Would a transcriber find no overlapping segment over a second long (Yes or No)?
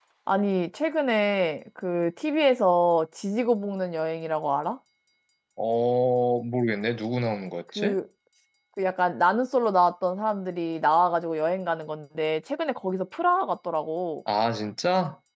Yes